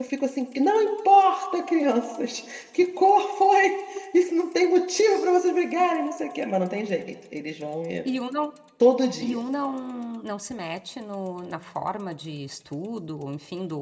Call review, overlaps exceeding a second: none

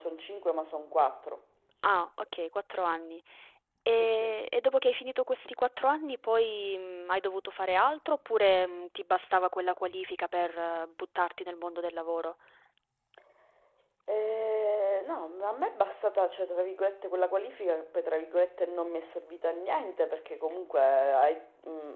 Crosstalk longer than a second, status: none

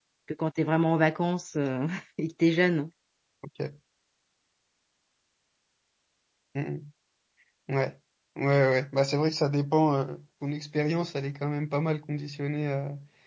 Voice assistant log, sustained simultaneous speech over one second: none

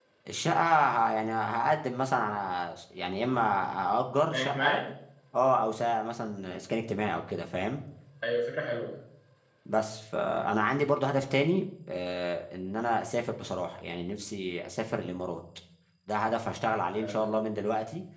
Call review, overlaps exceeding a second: none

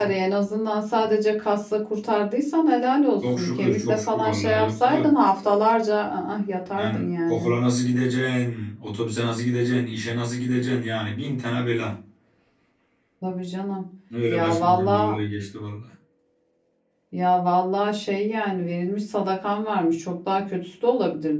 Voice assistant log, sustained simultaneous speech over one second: present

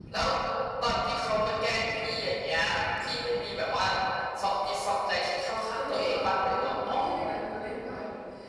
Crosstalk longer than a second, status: present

